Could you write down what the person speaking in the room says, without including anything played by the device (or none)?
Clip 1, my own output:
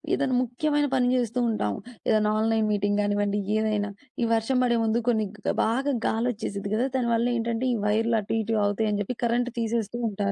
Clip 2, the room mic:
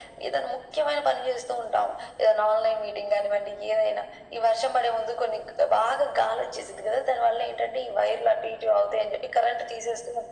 none